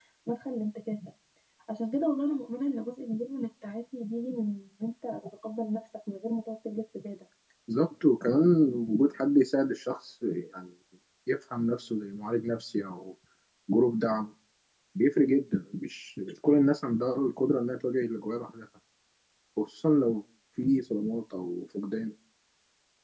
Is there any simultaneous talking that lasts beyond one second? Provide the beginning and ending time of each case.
none

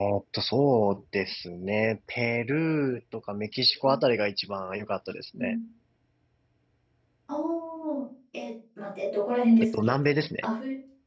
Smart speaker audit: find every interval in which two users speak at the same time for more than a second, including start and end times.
none

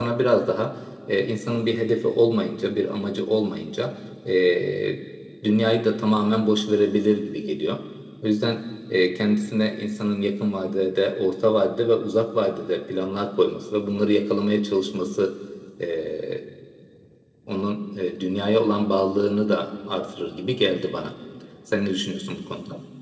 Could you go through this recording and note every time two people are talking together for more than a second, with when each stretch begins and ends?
none

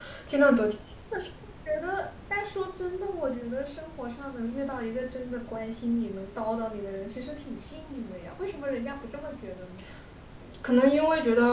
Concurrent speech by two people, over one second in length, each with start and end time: none

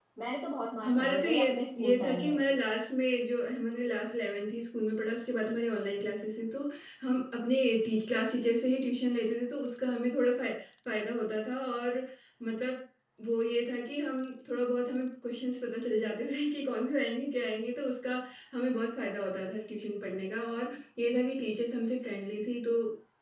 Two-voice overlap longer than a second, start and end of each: 0.8-2.4

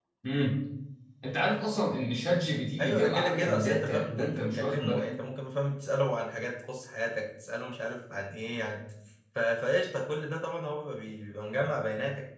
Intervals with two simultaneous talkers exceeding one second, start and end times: 2.8-5.1

